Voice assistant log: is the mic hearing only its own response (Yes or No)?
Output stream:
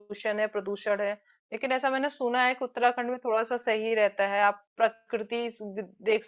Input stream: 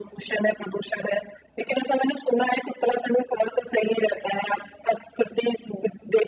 Yes